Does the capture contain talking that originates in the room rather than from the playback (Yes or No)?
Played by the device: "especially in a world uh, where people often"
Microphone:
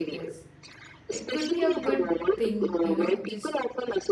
Yes